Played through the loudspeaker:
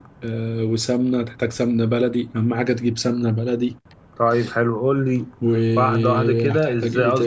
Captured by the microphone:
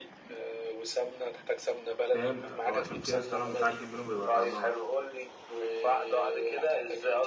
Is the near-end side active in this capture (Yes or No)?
Yes